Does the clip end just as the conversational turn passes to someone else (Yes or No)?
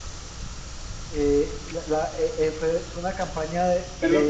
Yes